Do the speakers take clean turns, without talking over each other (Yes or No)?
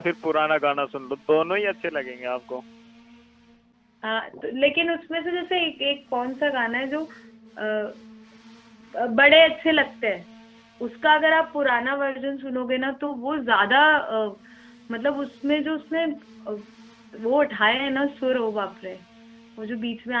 Yes